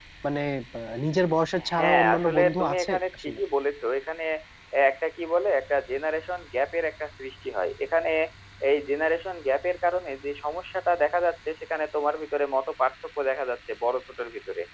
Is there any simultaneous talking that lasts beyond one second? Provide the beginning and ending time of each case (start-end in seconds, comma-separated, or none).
1.8-3.4